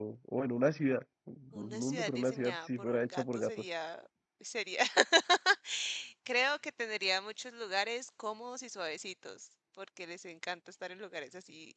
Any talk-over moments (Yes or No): Yes